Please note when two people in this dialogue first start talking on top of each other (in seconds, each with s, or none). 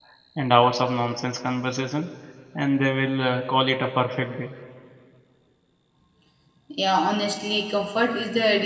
none